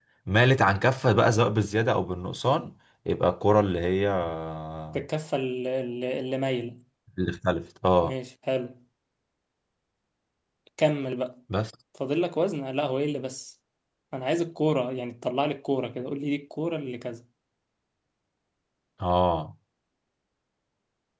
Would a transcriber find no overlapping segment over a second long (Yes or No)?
Yes